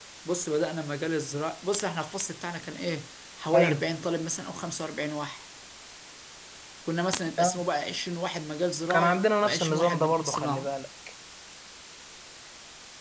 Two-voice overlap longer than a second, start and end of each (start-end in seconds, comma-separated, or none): 8.9-10.7